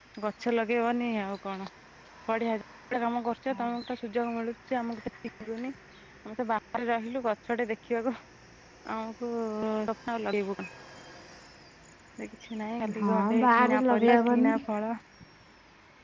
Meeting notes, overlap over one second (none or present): present